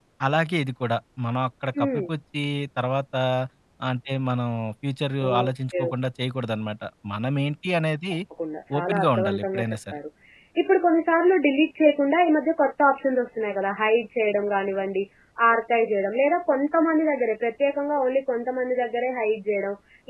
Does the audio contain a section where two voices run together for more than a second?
Yes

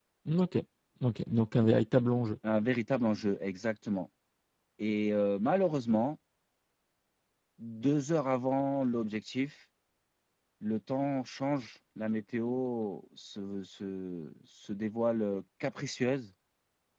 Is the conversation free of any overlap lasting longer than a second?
Yes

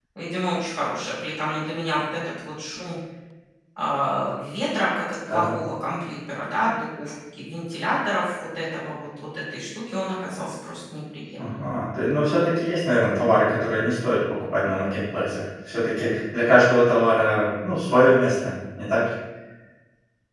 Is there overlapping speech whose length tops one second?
No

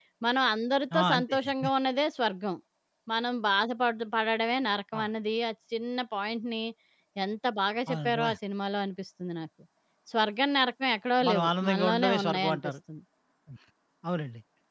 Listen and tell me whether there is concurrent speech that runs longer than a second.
Yes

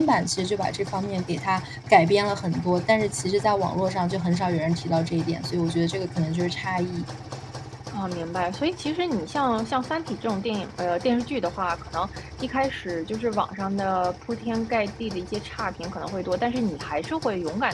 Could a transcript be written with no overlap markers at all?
Yes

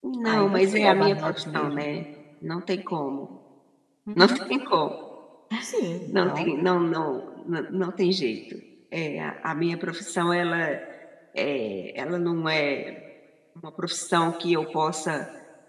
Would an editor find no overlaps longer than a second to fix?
No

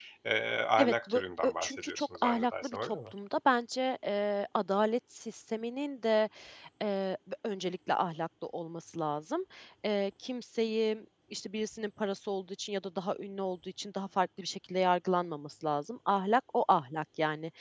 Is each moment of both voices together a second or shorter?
No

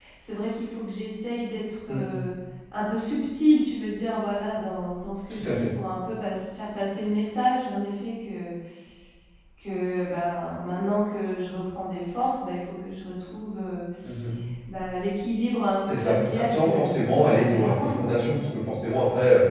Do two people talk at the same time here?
Yes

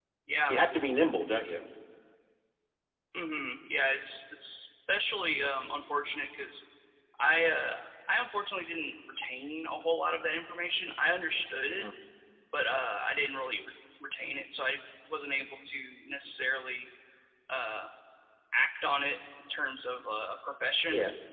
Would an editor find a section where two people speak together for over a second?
No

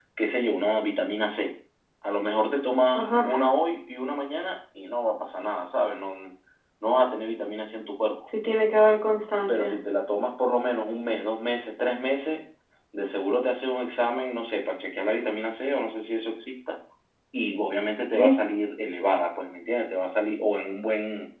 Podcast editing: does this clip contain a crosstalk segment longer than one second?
No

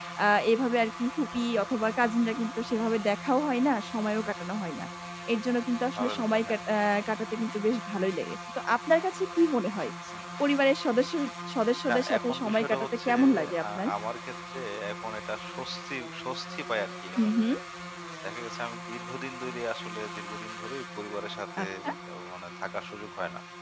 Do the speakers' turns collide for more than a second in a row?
Yes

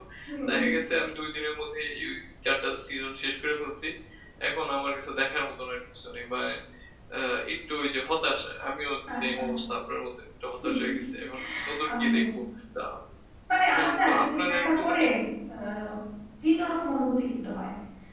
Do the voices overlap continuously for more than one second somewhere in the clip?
Yes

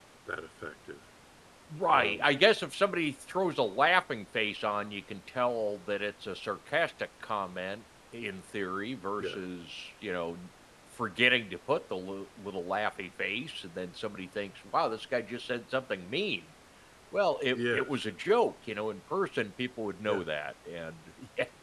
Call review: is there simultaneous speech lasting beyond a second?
No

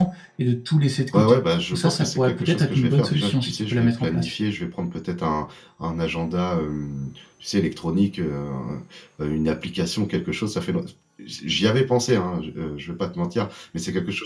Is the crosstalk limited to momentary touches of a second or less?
No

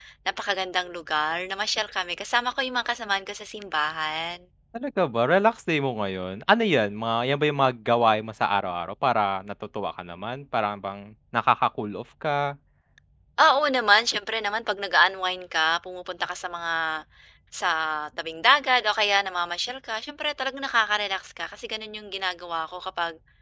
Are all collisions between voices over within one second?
Yes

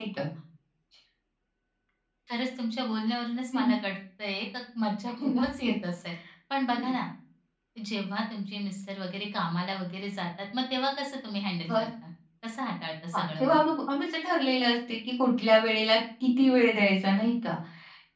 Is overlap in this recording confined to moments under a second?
Yes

